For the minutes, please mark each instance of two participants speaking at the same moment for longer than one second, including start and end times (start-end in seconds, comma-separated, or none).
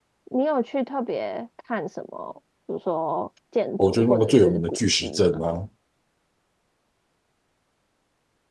3.9-5.4